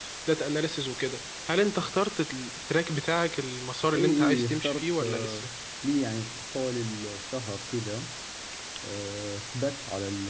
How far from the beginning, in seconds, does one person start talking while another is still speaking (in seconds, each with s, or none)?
3.9 s